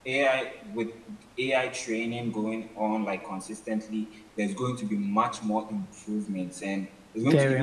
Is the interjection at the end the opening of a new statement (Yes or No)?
No